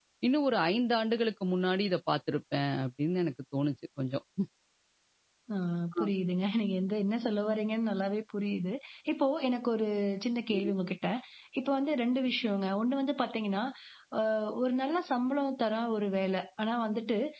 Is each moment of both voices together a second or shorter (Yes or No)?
Yes